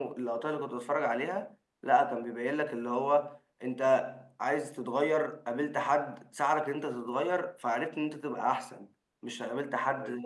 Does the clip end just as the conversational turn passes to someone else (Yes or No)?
No